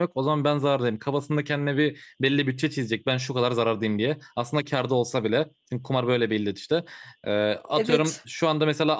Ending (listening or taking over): listening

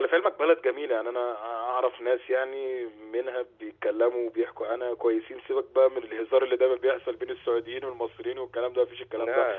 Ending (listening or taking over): listening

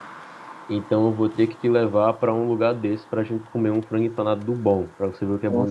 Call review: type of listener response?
taking over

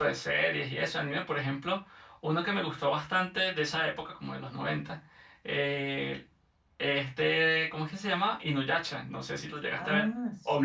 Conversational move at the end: taking over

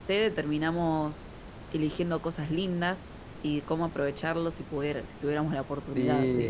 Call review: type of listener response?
taking over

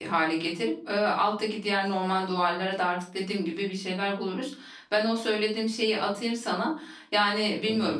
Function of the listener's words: listening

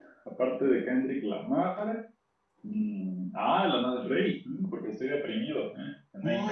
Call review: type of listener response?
taking over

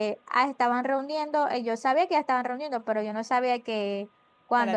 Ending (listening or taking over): listening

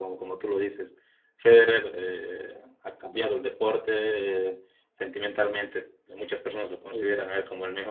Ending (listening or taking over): listening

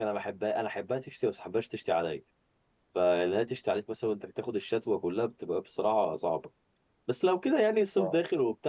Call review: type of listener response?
listening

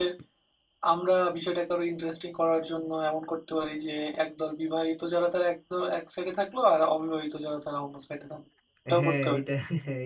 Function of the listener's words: taking over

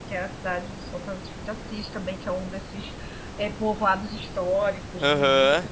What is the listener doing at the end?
listening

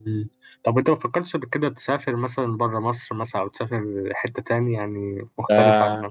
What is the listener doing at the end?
taking over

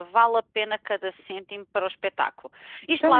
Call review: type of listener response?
taking over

